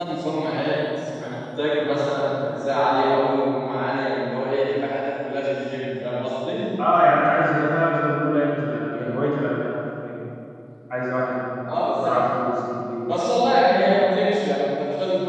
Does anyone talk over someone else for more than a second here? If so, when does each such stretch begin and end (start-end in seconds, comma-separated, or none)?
none